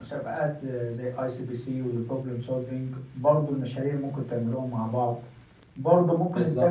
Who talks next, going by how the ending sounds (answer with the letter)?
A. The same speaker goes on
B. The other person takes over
A